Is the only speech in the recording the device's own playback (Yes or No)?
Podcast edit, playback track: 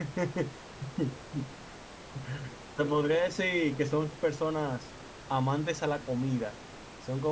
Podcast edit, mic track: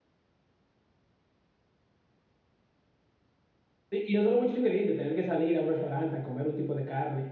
No